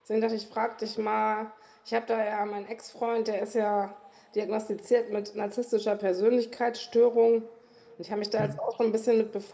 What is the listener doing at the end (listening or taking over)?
listening